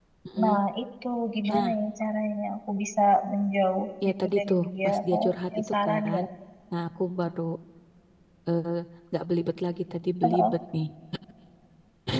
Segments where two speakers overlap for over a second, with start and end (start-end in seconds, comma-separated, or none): 4.1-6.2